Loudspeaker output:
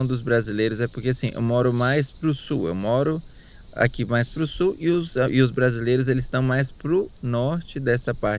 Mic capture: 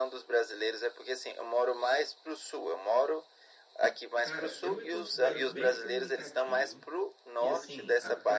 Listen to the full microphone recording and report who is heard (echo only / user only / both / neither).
both